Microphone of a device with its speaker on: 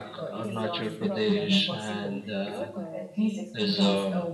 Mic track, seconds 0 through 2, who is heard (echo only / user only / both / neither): both